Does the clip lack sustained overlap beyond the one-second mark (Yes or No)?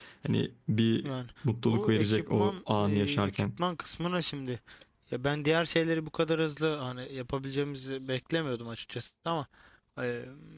No